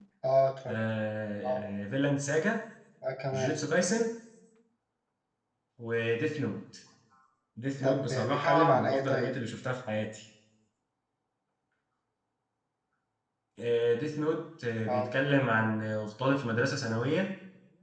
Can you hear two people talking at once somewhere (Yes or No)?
Yes